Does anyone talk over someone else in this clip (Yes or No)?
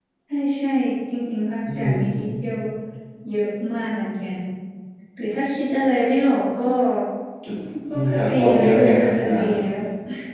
Yes